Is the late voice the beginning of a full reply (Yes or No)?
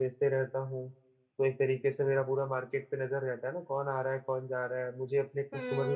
Yes